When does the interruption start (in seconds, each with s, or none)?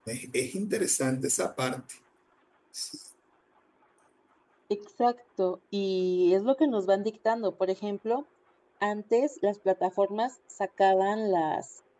none